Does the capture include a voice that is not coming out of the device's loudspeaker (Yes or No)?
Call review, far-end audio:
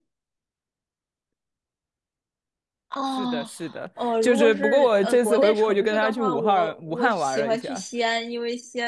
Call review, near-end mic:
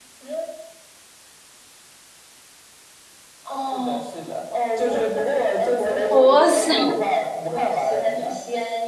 Yes